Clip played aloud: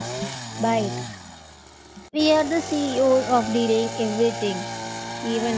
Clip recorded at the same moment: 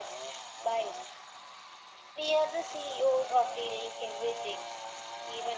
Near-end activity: none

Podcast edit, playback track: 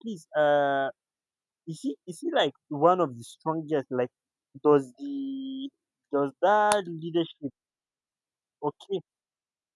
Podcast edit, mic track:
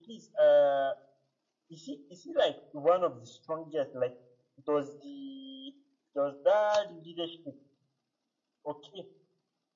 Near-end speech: none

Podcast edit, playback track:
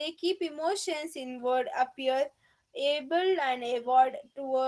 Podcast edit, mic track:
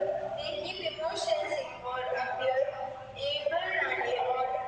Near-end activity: none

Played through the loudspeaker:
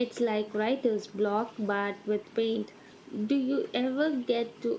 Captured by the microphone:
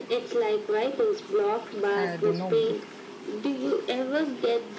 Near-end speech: present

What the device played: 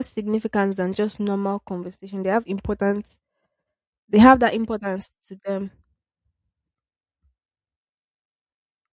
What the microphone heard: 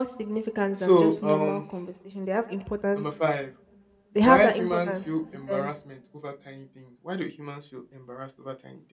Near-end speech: present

